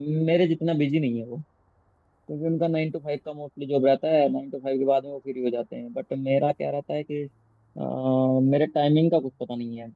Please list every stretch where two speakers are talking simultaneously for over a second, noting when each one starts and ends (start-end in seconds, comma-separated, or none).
none